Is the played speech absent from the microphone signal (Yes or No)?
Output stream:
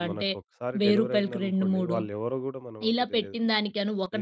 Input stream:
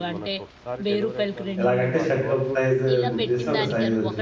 No